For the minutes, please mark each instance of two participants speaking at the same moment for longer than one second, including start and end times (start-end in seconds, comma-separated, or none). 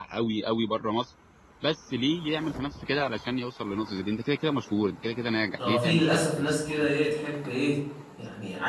5.6-6.9